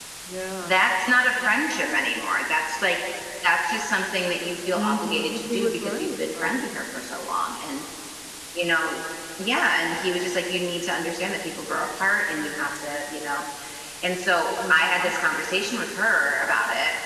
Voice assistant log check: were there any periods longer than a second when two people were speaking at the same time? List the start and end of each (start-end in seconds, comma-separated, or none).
4.7-6.7